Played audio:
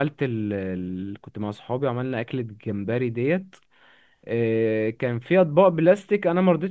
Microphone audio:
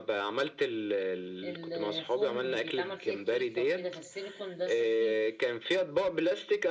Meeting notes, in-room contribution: present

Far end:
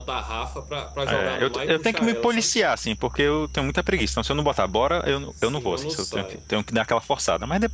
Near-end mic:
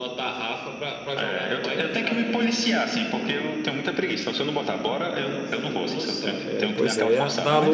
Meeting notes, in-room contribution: present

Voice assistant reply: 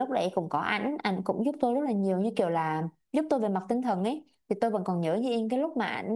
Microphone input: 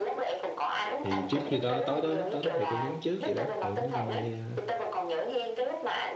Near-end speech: present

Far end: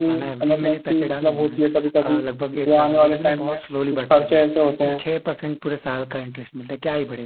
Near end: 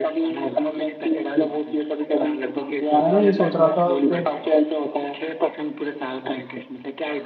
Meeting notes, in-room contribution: present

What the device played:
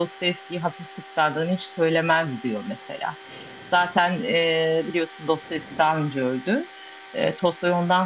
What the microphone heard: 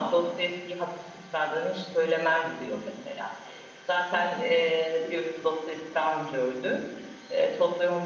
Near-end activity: none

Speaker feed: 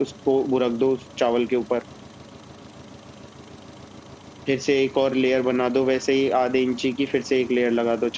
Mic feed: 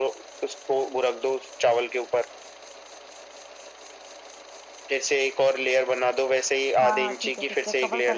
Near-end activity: present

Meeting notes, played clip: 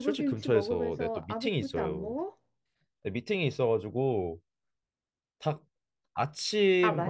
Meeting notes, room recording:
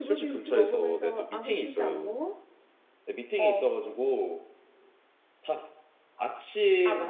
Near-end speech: present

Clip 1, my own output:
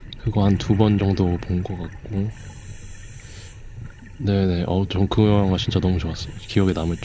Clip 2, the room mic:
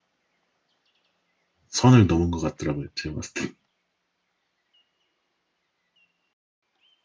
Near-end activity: present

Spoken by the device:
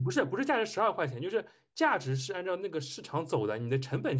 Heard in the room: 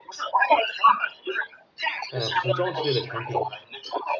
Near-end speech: present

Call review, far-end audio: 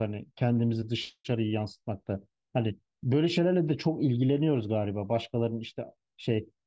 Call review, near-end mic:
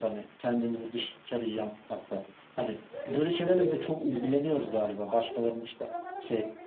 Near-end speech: present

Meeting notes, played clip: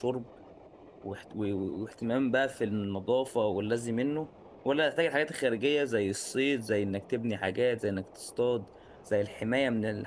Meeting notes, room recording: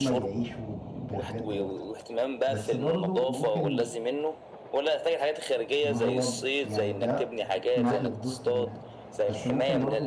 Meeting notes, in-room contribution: present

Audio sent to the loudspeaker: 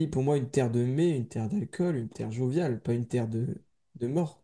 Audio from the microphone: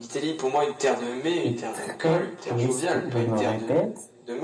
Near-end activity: present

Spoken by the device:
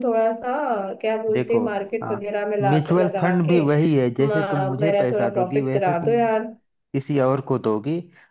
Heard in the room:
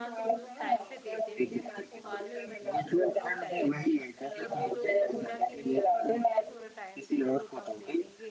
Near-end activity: present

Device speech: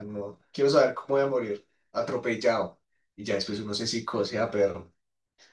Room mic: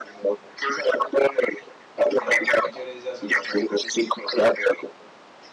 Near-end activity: present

